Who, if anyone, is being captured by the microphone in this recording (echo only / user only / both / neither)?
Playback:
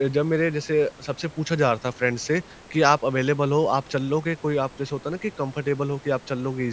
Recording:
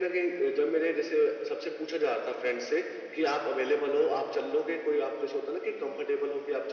echo only